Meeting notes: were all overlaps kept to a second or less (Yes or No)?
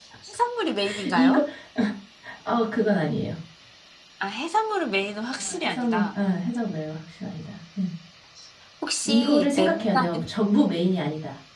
No